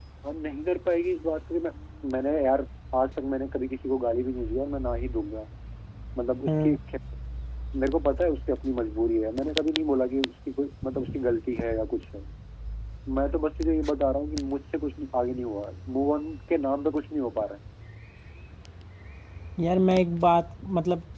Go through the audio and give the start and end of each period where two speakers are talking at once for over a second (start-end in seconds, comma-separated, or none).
none